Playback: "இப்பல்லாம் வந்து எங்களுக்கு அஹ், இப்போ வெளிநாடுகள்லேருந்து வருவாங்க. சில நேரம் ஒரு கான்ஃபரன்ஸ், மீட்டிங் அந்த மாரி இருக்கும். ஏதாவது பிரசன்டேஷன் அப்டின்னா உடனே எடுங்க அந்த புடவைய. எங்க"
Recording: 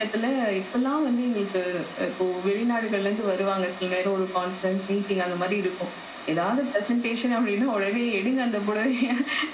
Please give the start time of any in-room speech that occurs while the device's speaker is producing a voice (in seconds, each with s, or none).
none